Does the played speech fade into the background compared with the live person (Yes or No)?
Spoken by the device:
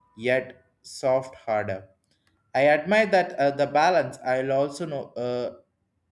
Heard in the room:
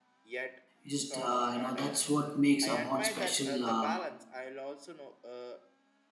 Yes